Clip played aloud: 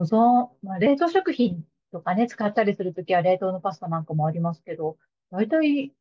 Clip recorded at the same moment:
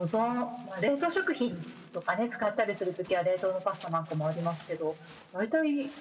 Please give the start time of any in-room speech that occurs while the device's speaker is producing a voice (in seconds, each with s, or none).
none